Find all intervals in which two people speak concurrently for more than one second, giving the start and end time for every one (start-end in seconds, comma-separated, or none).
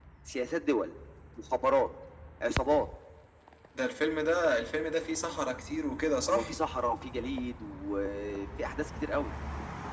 none